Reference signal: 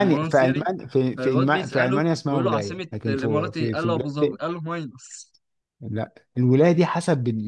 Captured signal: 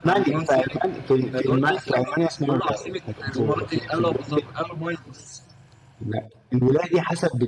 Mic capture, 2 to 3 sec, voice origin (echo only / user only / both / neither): echo only